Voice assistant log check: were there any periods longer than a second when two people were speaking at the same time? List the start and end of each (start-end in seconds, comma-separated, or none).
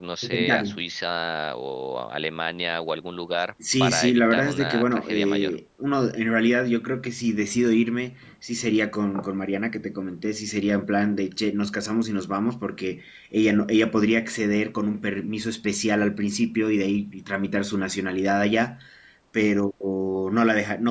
3.8-5.5